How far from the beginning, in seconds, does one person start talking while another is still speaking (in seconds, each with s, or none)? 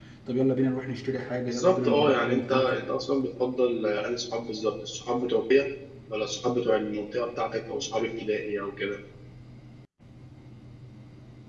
1.5 s